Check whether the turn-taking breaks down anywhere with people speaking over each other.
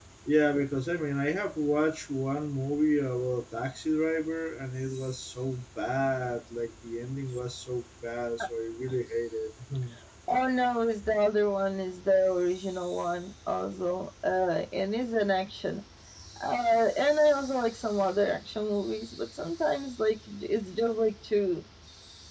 No

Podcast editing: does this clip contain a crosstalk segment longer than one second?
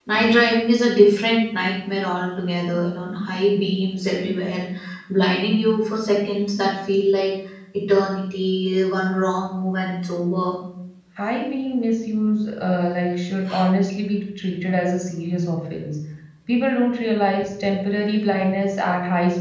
No

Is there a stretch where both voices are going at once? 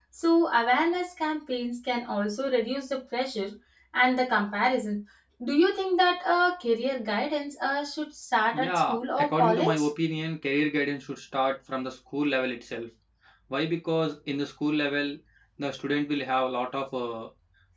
Yes, from 8.5 s

